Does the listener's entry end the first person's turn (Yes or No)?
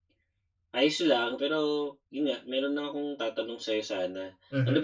No